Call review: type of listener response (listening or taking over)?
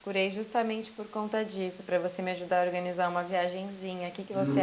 taking over